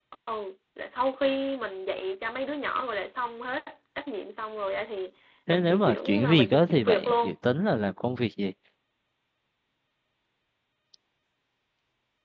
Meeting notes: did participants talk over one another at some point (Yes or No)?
Yes